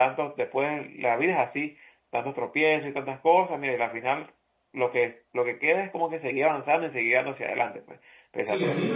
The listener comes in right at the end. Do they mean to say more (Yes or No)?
Yes